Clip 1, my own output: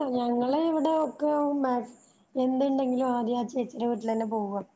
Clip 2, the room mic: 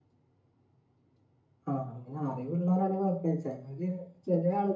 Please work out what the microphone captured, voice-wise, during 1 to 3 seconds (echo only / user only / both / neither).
user only